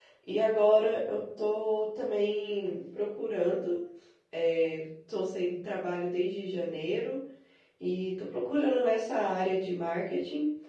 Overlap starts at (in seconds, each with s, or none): none